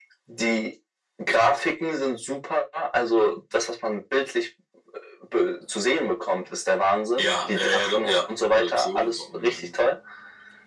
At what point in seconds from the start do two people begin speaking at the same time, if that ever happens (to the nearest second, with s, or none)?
7 s